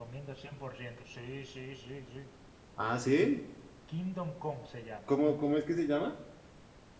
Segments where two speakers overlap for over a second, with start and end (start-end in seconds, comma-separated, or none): none